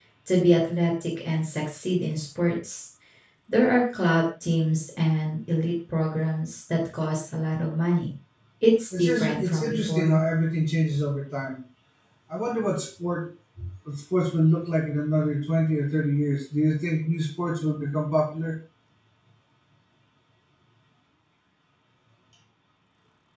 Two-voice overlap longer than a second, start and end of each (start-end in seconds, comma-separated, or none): 9.0-10.2